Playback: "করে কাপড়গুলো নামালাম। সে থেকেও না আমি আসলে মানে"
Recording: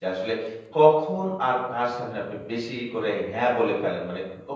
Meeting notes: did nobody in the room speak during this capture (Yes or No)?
No